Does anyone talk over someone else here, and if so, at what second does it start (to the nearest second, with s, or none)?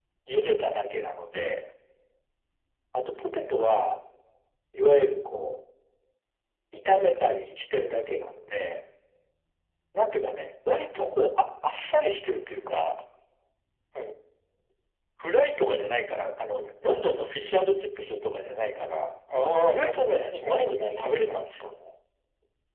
20 s